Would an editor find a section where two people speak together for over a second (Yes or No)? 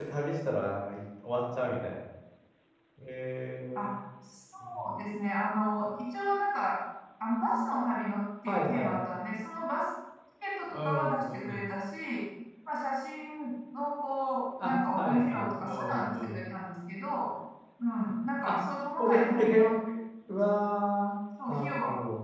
Yes